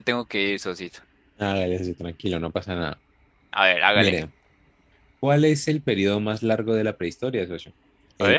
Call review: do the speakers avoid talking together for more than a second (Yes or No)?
Yes